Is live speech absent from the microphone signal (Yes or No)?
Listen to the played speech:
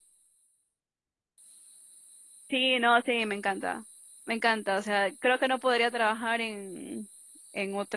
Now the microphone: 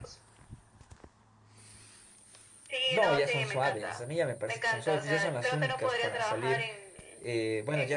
No